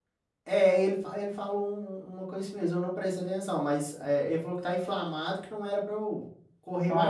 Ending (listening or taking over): taking over